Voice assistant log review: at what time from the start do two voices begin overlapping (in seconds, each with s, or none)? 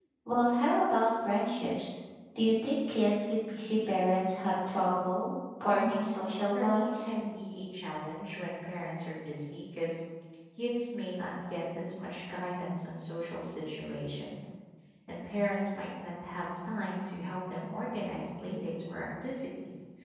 5.7 s